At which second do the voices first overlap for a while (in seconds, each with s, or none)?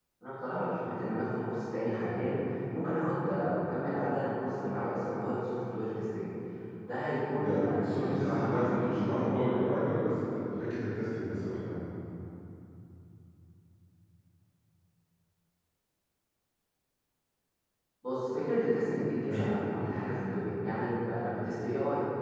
7.3 s